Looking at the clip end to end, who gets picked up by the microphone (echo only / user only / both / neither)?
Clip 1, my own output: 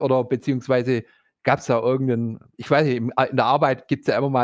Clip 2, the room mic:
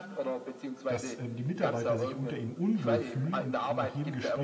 both